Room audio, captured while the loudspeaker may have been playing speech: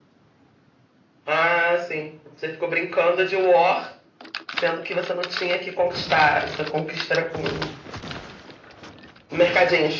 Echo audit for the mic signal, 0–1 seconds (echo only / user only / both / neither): neither